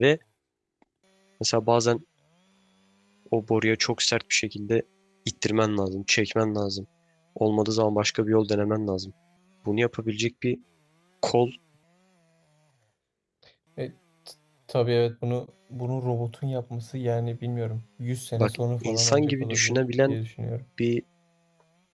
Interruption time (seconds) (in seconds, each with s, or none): 18.4 s